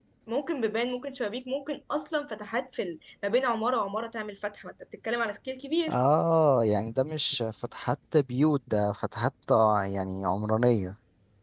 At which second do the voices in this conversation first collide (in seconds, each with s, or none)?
none